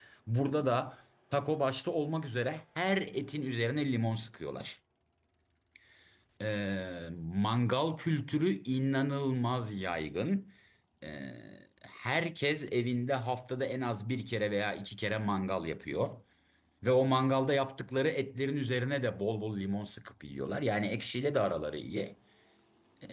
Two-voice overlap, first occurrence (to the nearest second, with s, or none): none